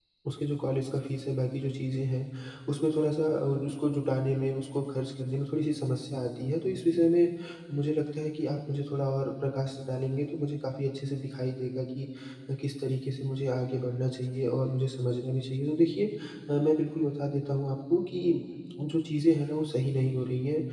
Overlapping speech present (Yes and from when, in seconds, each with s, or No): No